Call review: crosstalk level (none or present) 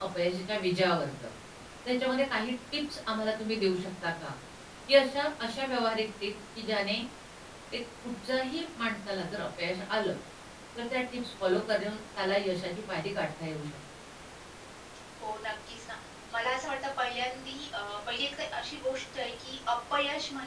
none